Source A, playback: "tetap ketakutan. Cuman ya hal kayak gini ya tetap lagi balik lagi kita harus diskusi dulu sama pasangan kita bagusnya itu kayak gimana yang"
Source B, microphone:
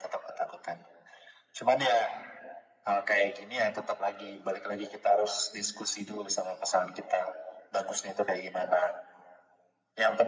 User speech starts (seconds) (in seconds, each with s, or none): none